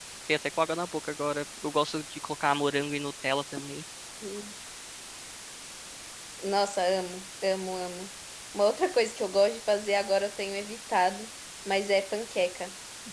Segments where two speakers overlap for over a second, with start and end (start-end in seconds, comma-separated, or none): none